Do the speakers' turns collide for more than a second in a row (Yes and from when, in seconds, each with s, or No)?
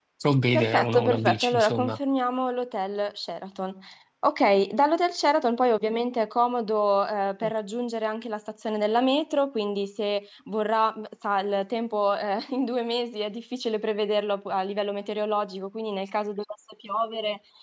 Yes, from 0.5 s